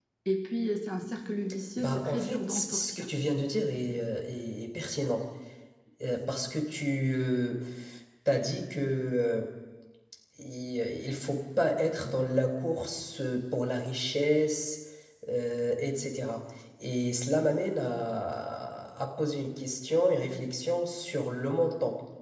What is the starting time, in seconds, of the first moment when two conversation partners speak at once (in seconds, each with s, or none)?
1.8 s